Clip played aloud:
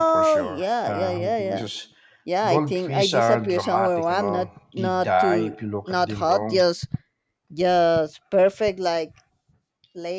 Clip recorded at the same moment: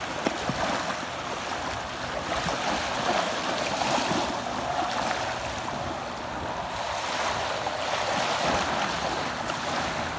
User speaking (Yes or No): No